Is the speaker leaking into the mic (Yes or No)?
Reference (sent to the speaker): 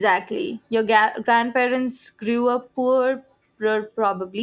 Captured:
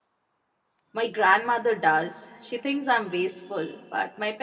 No